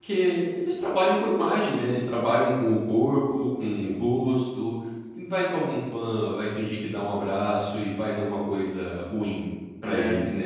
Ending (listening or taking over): taking over